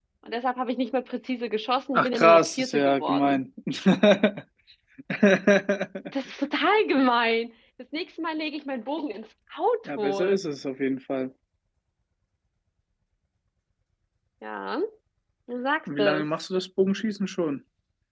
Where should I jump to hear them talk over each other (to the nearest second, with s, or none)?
2 s